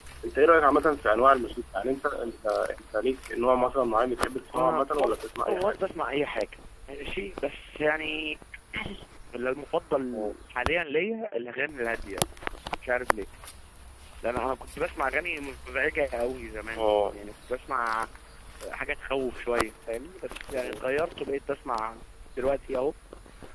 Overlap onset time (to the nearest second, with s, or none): 5 s